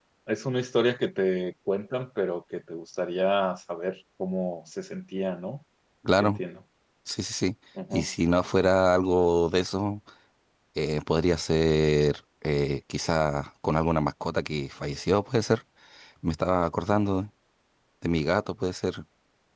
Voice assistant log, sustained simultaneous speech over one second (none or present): none